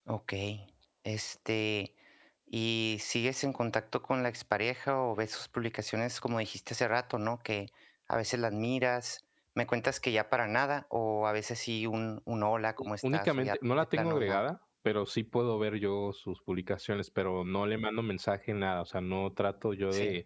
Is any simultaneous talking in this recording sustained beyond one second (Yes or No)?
Yes